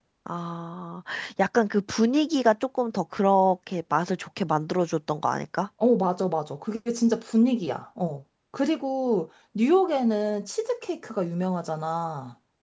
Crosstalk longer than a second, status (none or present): none